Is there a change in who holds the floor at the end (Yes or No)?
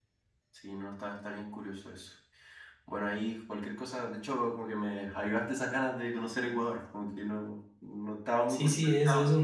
Yes